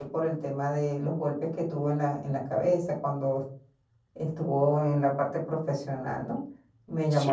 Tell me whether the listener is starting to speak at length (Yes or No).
No